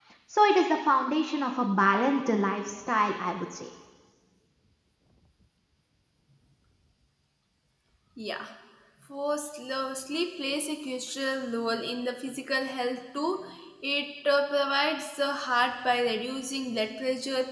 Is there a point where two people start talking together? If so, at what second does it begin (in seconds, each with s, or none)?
none